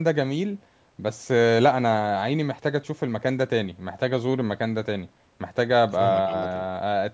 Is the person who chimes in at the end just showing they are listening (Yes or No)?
Yes